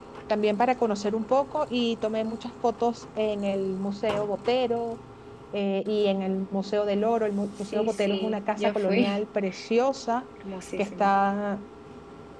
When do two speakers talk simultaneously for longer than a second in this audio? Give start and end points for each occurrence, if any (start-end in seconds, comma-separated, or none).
7.7-9.2